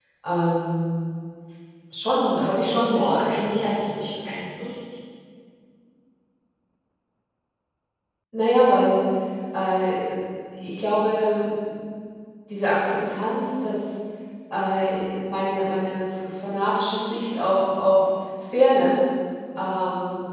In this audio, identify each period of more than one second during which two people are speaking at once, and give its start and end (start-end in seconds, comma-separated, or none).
2.9-4.2